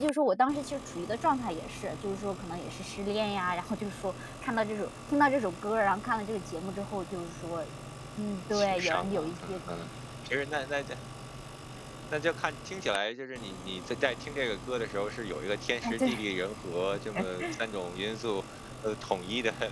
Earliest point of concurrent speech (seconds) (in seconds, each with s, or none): 8.5 s